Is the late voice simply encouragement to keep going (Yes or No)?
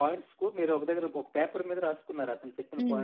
No